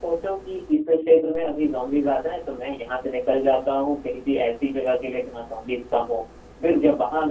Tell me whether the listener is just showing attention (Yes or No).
Yes